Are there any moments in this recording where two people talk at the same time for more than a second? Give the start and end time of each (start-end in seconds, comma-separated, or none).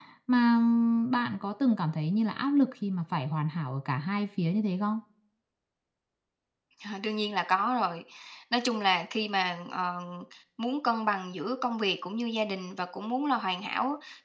none